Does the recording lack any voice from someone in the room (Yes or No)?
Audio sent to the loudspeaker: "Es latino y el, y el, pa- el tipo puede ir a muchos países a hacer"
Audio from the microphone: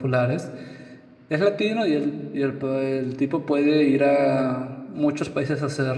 Yes